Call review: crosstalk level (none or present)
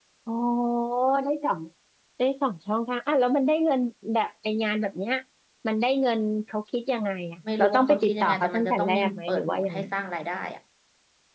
present